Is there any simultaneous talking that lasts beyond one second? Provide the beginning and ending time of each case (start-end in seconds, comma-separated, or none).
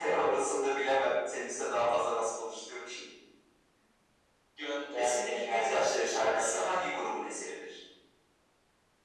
5.0-6.7